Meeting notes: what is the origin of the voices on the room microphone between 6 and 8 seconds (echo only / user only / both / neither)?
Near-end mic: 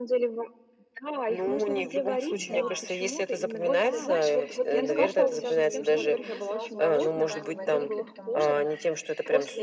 both